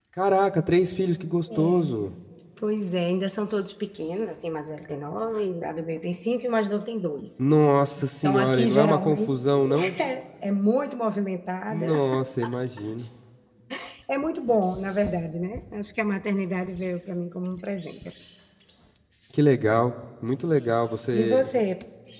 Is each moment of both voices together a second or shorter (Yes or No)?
No